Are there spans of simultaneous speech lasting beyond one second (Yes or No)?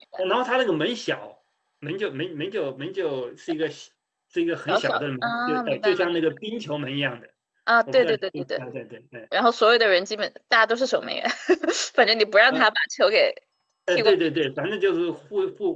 Yes